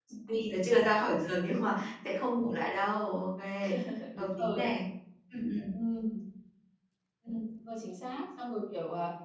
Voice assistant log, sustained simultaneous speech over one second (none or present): none